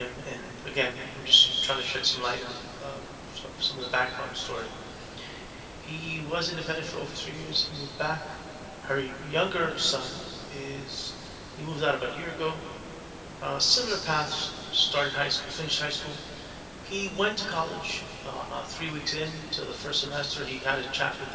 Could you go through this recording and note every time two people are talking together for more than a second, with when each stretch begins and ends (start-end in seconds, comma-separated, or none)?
none